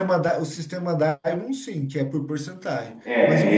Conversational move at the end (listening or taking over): listening